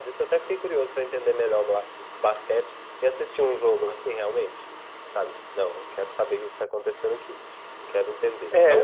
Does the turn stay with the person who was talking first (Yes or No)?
No